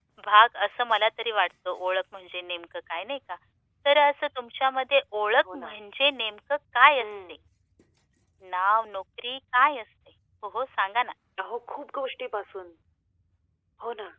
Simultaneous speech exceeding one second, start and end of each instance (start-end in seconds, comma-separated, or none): none